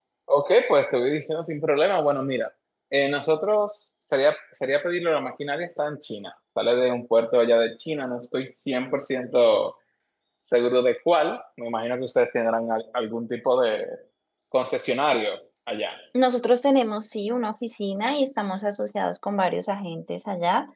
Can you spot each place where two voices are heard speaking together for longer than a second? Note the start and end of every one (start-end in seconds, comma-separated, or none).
none